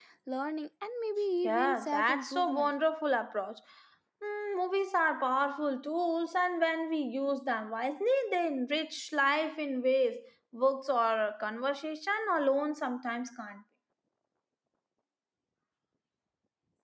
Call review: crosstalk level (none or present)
present